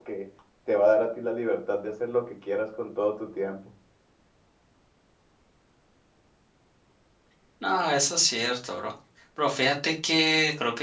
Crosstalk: none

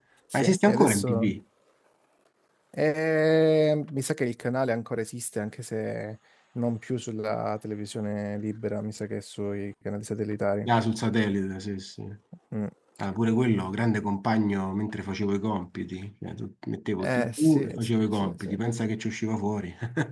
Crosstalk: present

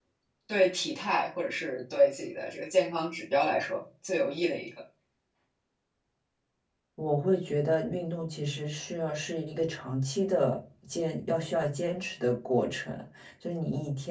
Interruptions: none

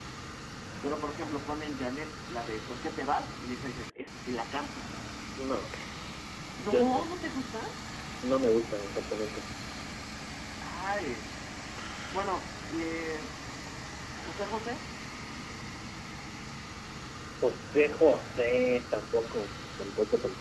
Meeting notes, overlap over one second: none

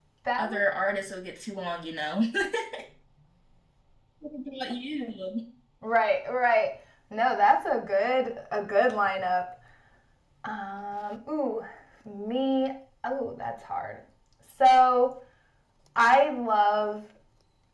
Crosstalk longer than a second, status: none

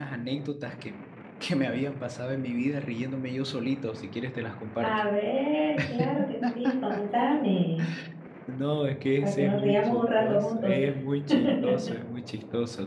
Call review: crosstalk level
present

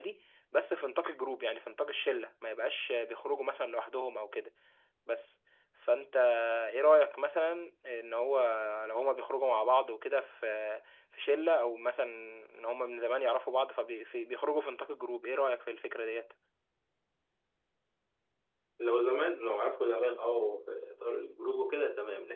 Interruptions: none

